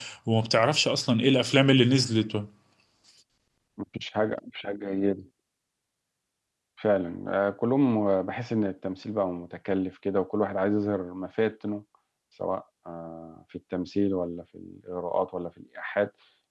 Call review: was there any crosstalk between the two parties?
No

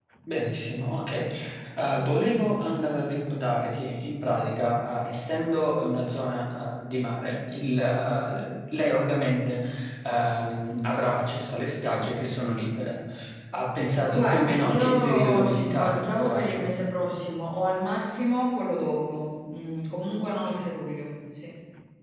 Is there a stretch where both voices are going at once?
Yes, from 14.1 s

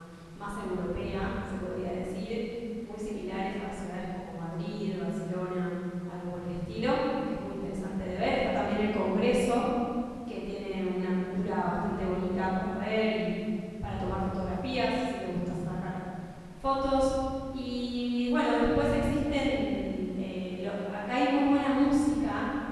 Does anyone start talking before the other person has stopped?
No

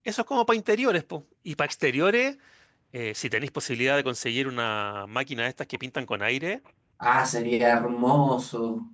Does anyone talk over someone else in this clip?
No

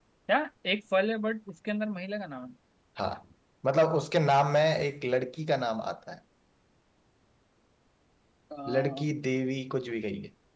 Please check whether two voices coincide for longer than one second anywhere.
No

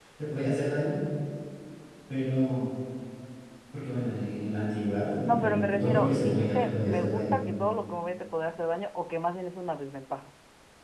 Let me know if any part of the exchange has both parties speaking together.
Yes, from 5.2 s

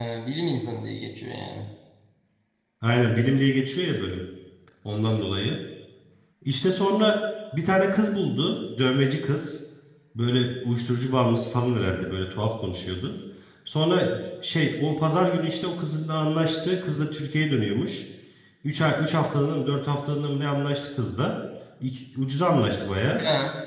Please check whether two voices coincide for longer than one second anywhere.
No

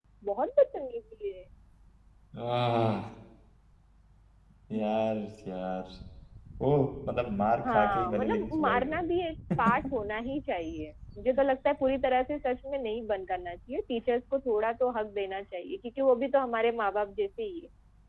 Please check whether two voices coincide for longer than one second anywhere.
Yes, from 7.6 s

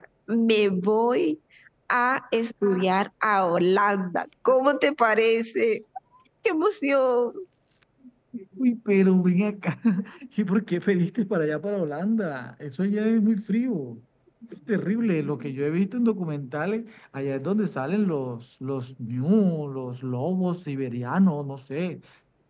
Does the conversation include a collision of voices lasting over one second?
No

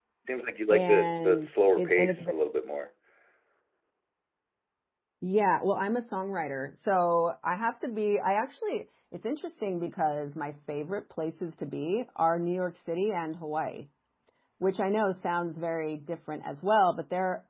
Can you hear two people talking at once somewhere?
Yes, from 0.7 s

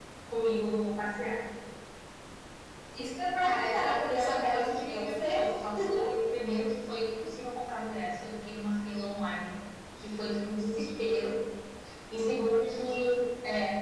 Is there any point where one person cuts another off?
Yes, from 3.4 s

